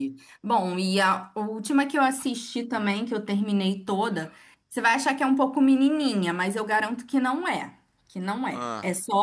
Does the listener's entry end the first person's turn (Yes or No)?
No